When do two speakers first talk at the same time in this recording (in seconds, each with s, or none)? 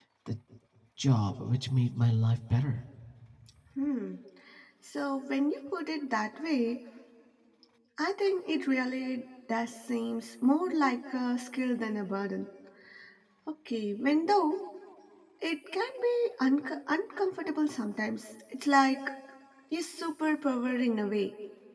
none